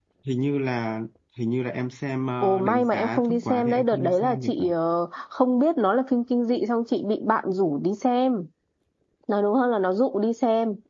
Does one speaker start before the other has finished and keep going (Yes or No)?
Yes